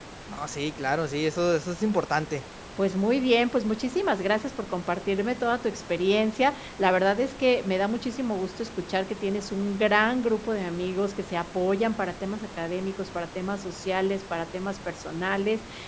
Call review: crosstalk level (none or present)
none